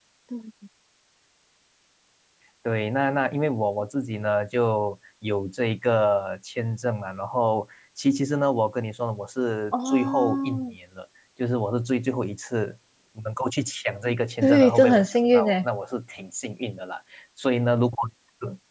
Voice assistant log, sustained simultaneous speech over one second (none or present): present